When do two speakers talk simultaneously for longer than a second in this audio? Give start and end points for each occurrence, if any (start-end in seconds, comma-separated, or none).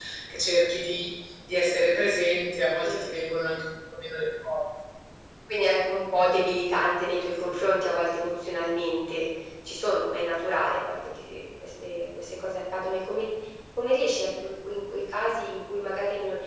none